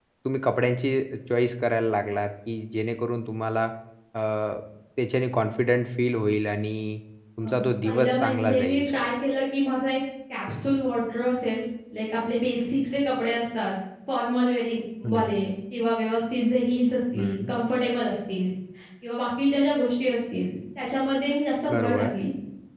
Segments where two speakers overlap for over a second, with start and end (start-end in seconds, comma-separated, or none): 7.4-8.9